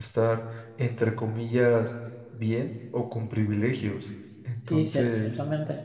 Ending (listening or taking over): taking over